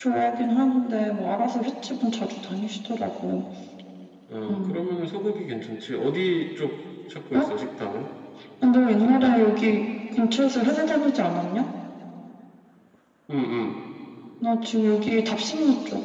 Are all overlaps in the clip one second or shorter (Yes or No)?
Yes